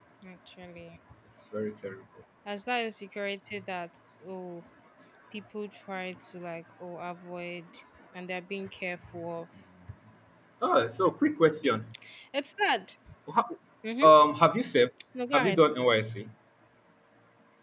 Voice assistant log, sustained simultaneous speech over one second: none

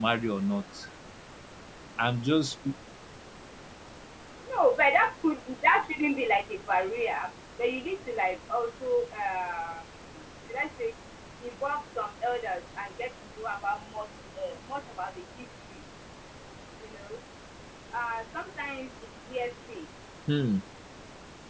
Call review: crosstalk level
none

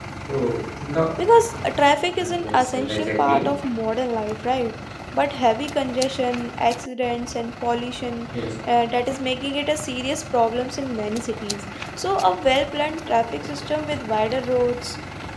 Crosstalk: present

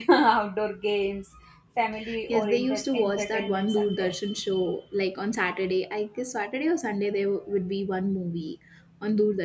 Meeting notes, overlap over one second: present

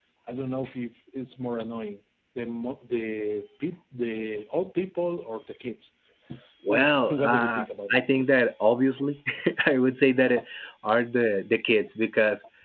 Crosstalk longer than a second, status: present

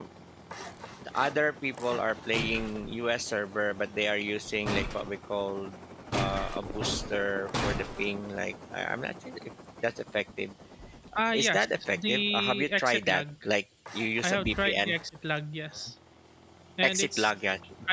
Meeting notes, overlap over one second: present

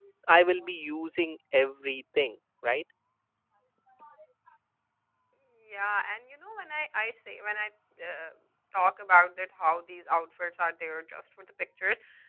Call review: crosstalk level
none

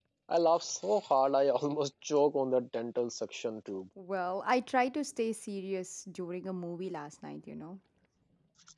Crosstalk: none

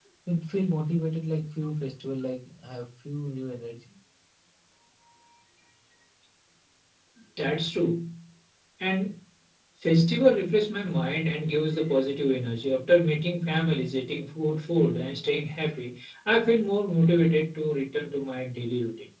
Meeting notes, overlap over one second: none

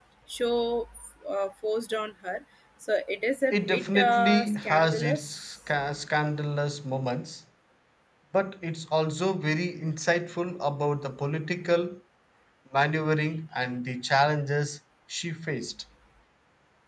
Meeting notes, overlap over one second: present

